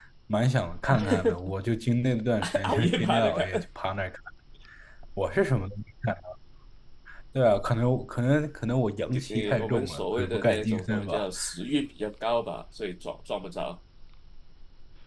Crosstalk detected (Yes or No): Yes